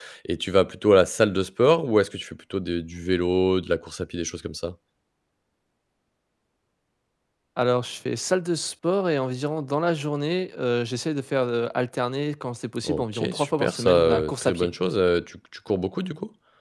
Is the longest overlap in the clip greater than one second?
Yes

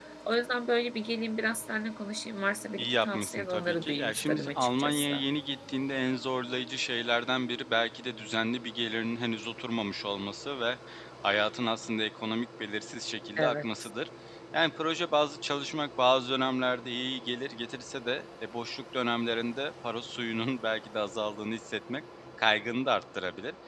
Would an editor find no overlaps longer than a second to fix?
No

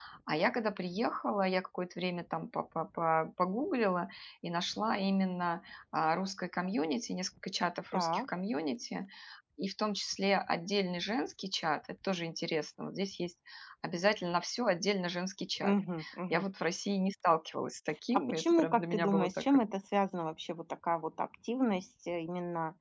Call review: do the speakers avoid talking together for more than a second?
No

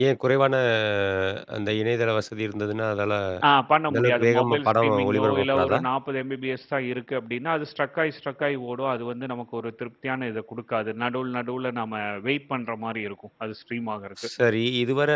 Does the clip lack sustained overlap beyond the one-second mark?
No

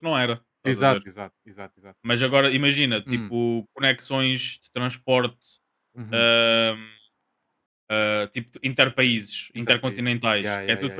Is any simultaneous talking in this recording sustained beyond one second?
No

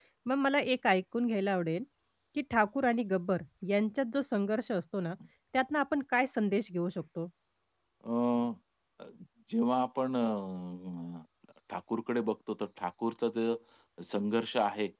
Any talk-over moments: No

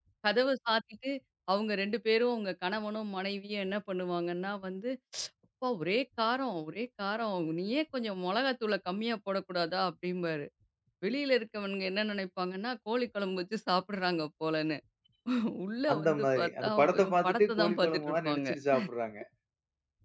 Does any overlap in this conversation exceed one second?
Yes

